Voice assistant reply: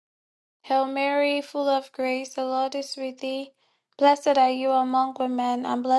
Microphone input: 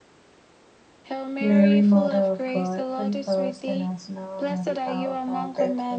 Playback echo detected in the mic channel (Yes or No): Yes